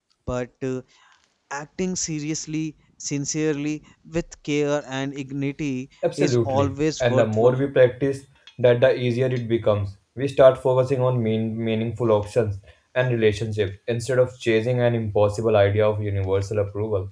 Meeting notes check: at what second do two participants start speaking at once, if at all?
6.0 s

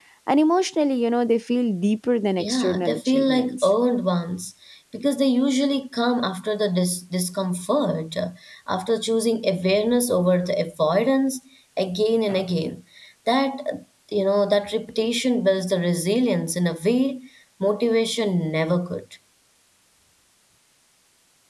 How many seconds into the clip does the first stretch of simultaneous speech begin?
2.4 s

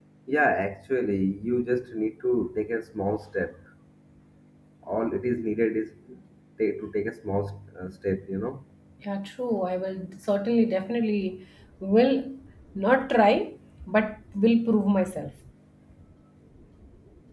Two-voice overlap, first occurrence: none

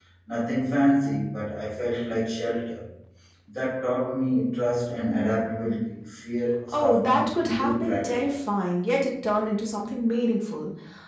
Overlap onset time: 6.7 s

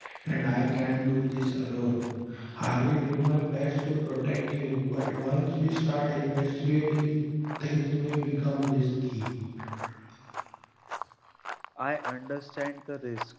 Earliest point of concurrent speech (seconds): none

